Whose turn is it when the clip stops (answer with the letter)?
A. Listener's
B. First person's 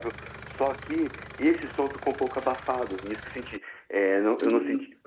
B